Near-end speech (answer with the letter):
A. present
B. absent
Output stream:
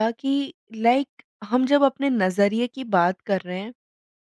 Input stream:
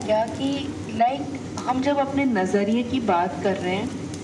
B